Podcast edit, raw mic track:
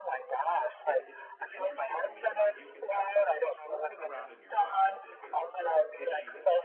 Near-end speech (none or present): present